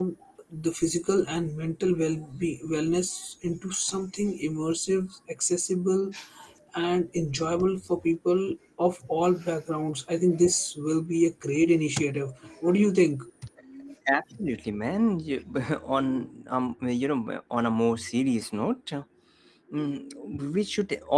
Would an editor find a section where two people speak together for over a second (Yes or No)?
No